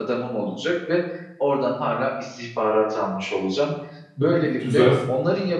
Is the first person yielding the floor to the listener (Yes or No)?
No